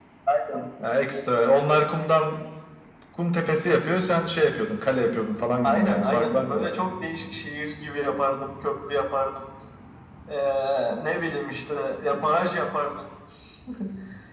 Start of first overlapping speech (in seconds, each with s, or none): 5.6 s